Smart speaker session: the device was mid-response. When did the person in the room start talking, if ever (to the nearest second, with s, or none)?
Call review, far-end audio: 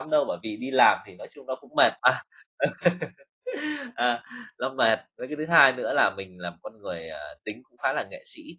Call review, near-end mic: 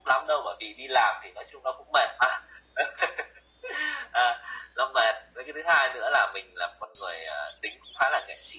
none